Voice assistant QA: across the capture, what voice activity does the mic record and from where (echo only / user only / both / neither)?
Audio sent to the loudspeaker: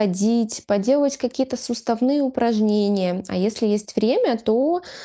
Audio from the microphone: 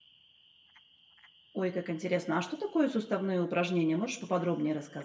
user only